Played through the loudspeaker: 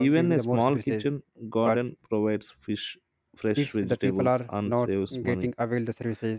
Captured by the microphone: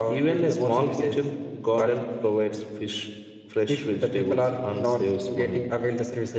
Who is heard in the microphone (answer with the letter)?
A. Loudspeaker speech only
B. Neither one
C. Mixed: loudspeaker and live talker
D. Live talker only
A